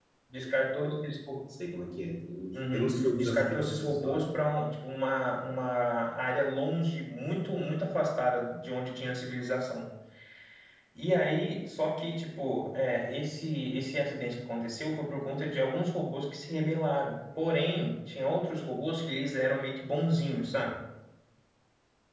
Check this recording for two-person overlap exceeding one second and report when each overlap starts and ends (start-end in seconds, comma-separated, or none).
2.7-4.2